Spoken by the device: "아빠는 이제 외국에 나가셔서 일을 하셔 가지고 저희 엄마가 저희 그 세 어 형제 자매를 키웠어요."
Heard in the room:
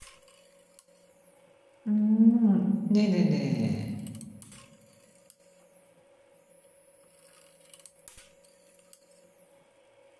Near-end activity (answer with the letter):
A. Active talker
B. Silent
A